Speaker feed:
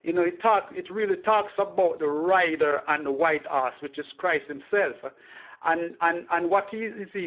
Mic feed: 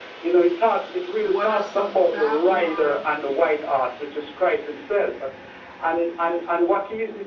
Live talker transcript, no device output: What are some Babylon

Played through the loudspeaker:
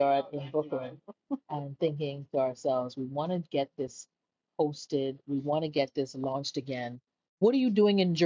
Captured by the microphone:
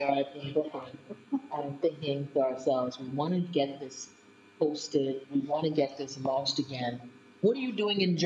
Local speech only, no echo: none

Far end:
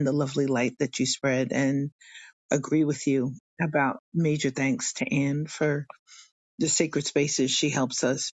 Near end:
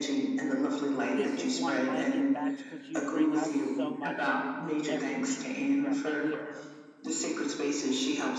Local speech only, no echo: this is one of my give backs because you bring us so much every week, every week throughout the year,

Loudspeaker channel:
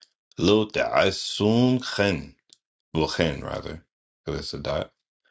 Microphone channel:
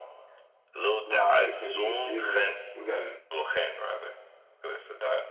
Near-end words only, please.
nah, because even you gotta

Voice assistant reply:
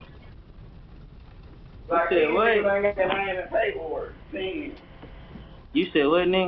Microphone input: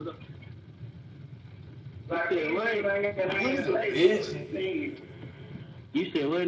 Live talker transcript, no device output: You's a bitch.

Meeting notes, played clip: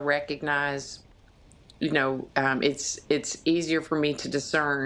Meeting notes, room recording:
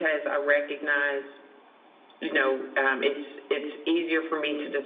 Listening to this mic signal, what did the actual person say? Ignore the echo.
none

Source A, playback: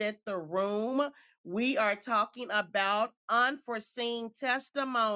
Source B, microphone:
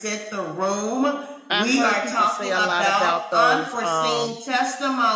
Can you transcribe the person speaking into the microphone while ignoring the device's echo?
I heard people say a lot about those um

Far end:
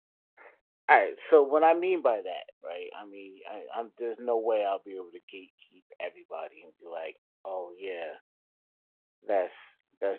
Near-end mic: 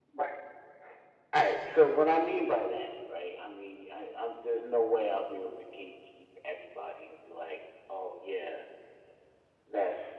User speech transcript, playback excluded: none

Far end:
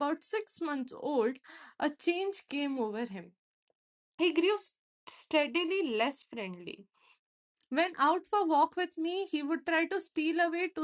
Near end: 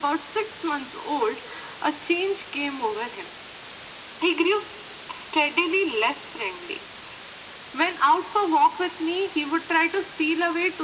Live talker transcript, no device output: none

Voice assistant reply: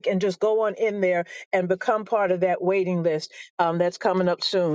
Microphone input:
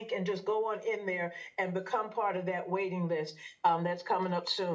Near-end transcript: none

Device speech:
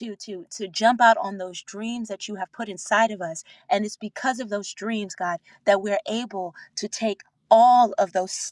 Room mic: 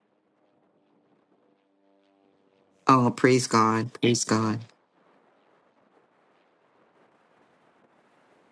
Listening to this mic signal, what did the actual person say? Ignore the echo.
Oh, praise God. Praise God.

